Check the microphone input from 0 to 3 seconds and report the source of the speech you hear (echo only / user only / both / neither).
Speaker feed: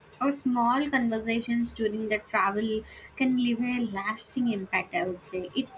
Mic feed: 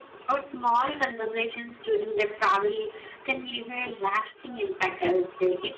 echo only